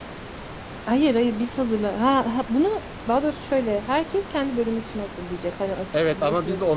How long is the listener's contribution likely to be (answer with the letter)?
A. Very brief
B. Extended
B